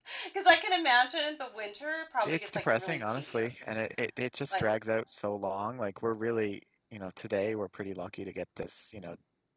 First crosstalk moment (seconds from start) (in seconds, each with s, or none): 2.2 s